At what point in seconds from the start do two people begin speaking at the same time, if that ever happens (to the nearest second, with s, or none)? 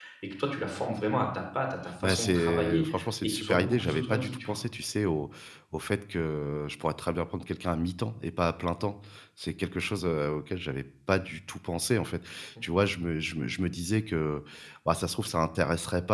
2 s